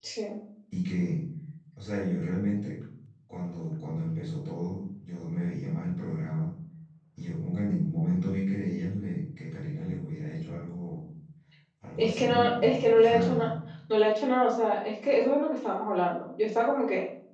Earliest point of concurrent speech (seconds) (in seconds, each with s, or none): 12.0 s